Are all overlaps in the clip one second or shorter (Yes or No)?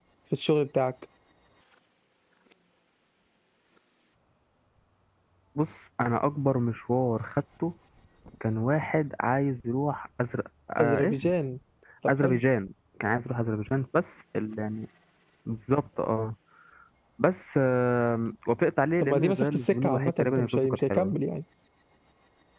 No